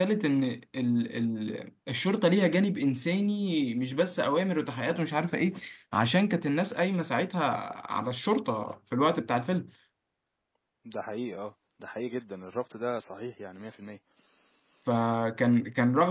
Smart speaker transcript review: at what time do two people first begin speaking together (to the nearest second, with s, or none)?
none